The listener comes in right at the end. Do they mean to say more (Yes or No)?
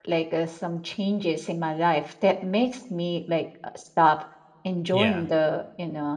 No